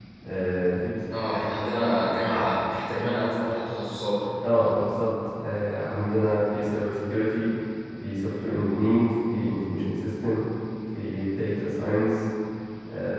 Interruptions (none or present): none